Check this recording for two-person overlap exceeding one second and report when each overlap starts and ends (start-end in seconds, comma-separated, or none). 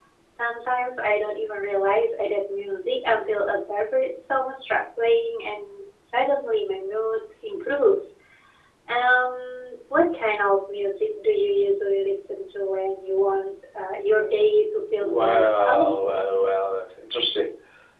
15.0-16.2